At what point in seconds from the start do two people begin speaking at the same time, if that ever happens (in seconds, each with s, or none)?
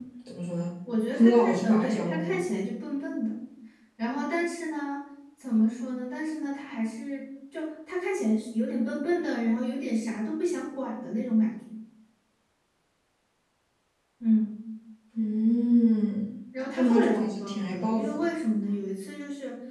1.2 s